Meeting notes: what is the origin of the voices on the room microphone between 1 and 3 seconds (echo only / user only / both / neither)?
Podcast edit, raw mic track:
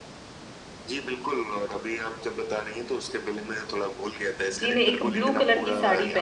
echo only